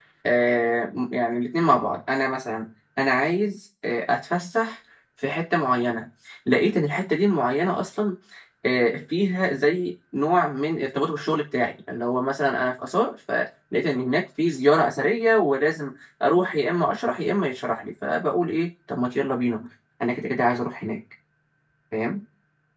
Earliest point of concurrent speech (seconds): none

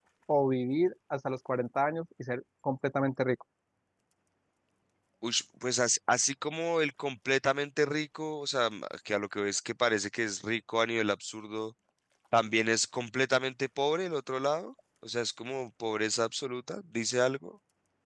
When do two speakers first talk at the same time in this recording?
none

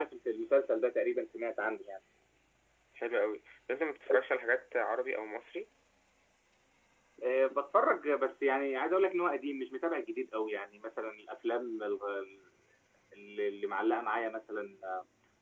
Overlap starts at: none

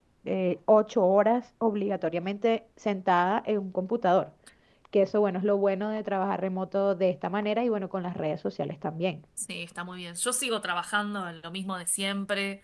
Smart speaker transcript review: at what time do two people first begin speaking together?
none

